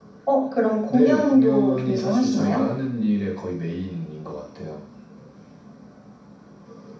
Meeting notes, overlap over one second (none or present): present